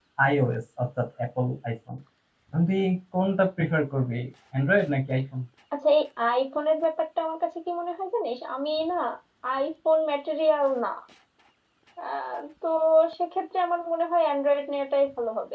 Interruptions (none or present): none